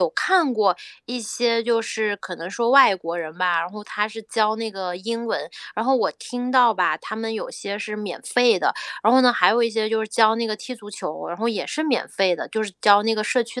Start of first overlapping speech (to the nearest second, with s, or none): none